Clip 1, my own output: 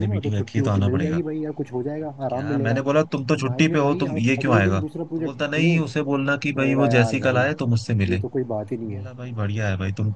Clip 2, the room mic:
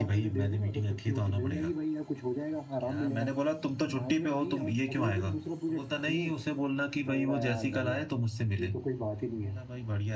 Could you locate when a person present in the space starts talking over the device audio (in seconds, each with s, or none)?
none